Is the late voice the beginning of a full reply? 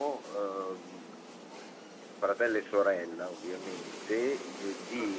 No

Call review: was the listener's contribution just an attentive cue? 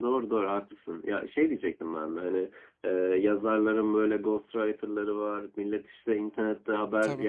Yes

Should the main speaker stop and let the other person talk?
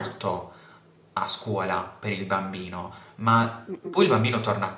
No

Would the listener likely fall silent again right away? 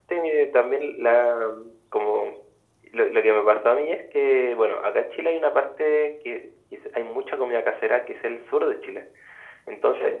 Yes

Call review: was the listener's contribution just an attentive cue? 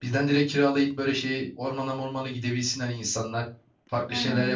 Yes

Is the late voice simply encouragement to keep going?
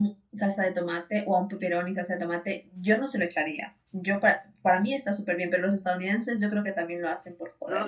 No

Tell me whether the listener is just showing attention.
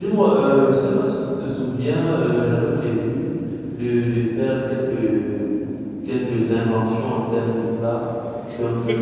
Yes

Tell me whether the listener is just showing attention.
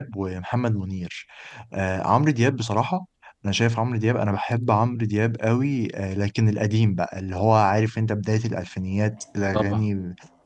Yes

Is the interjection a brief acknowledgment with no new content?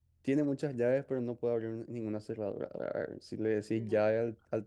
Yes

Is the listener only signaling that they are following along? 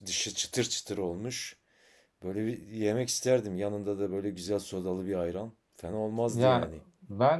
No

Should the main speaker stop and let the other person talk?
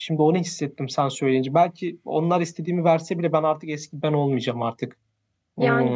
Yes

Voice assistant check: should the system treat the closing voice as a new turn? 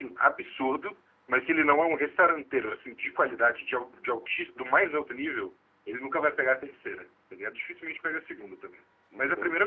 Yes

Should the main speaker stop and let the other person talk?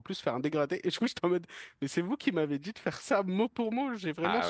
No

